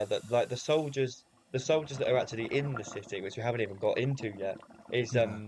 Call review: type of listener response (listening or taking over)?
listening